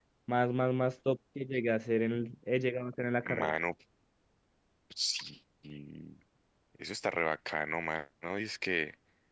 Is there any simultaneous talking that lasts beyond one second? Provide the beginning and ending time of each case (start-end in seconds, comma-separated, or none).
none